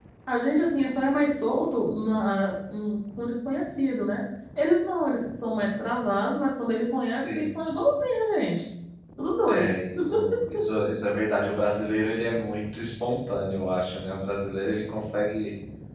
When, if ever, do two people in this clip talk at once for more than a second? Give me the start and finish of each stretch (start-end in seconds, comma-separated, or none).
none